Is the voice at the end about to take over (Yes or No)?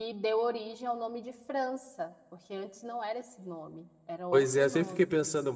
Yes